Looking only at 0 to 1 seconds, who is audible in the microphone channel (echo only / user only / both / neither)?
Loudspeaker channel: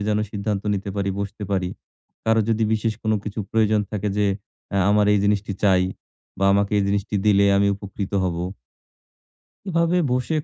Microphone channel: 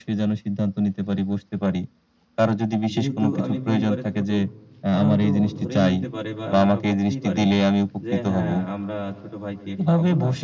echo only